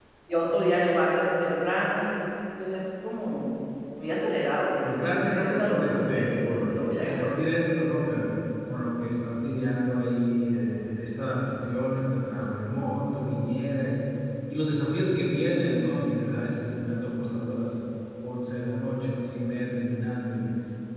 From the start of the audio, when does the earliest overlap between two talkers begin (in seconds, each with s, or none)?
4.8 s